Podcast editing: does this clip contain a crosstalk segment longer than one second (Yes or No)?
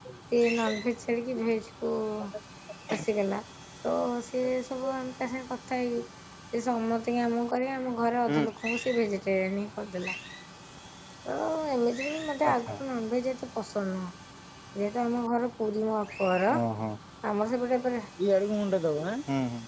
No